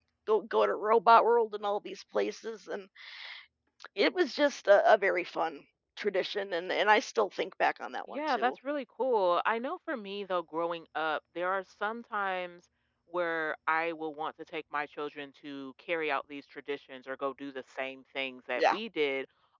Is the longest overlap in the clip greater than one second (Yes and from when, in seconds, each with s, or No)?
No